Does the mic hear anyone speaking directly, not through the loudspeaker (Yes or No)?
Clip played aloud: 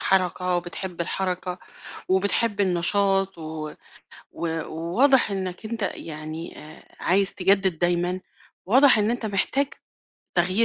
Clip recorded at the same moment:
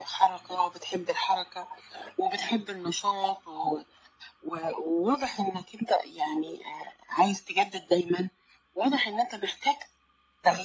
No